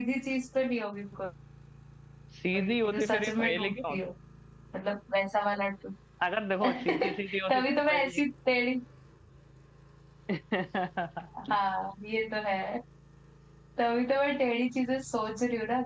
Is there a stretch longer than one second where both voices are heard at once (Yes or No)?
Yes